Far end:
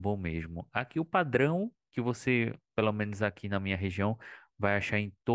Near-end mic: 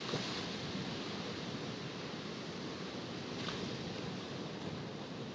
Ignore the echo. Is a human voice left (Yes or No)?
No